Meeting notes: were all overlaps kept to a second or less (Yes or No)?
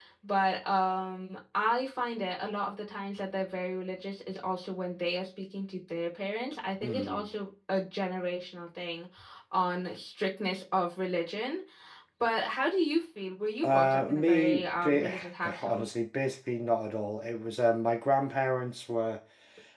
No